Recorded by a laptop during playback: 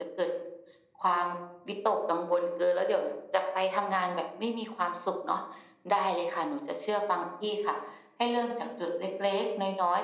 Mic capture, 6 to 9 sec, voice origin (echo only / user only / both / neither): echo only